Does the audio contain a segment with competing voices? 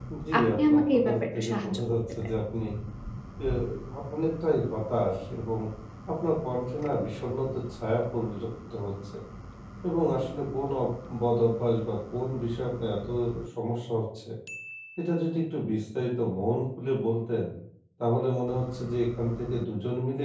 Yes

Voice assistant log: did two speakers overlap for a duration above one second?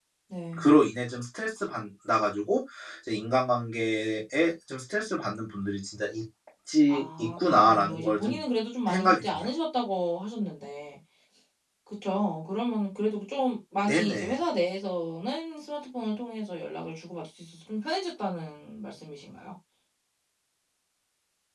Yes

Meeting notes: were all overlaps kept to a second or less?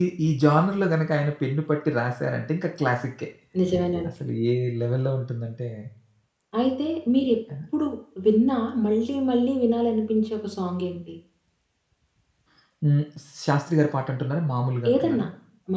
Yes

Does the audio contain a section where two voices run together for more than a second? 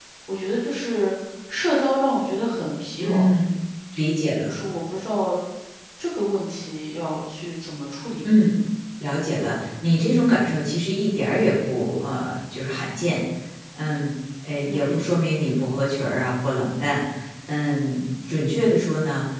No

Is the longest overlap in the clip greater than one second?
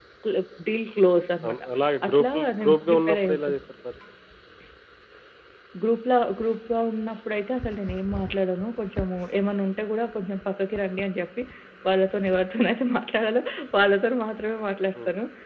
Yes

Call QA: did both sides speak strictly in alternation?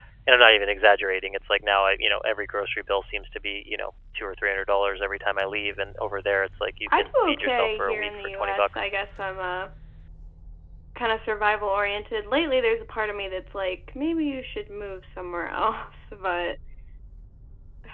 No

